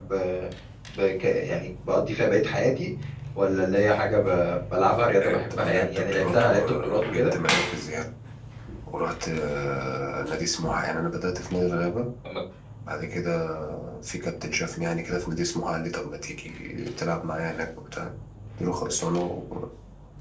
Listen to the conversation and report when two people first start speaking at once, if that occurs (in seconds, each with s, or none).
5.2 s